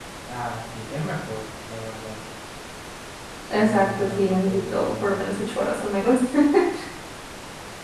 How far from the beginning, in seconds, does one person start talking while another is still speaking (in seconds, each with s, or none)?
3.5 s